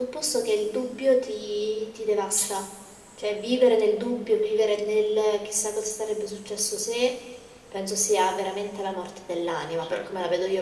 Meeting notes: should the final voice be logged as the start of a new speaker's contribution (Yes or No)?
No